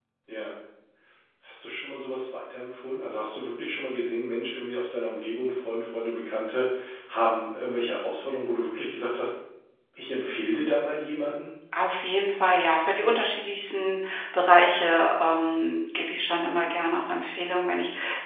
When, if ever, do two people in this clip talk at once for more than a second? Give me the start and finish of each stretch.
none

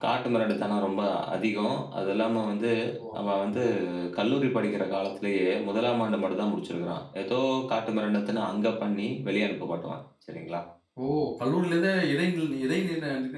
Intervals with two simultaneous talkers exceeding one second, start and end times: none

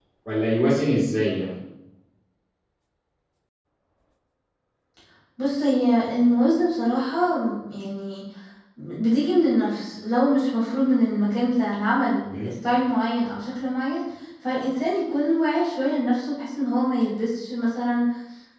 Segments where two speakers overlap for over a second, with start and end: none

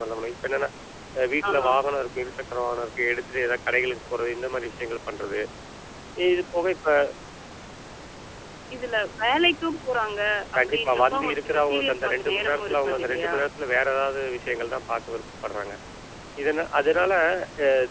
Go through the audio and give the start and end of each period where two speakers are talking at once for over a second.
10.7-13.3

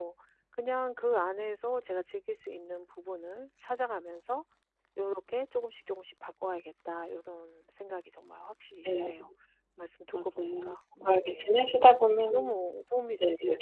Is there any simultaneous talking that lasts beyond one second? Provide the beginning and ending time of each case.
10.2-11.6

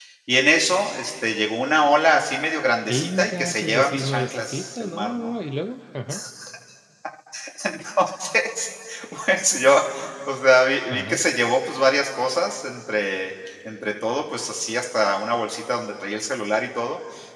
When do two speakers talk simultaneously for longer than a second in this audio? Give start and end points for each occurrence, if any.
2.9-5.3

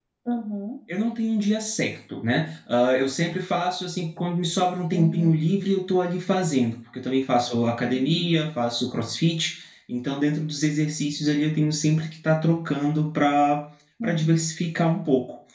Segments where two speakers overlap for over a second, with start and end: none

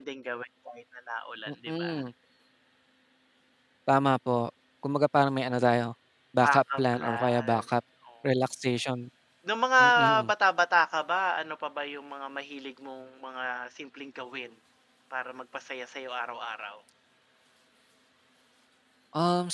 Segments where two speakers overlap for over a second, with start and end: 6.4-7.6

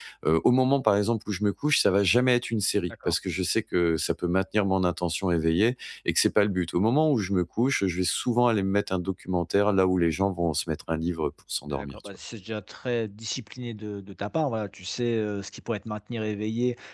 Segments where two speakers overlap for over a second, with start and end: none

